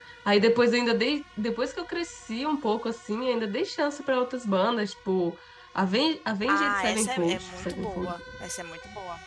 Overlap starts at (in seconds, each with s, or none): 6.5 s